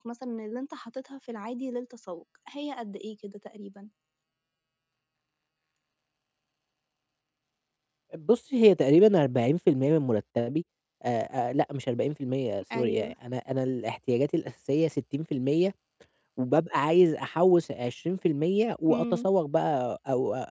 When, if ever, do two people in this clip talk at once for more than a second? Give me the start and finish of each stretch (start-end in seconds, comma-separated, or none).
none